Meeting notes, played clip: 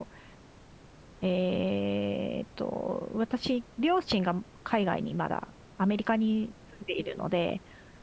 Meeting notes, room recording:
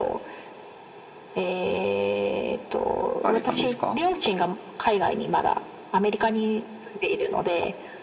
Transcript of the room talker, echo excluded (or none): 行かれたんですか